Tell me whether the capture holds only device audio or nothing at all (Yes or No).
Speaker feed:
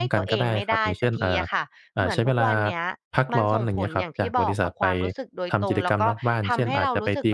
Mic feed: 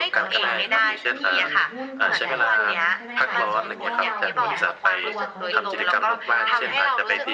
No